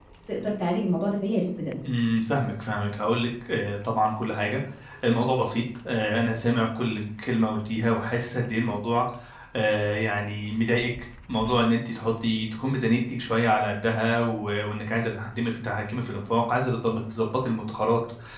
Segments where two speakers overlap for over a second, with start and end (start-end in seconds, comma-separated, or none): none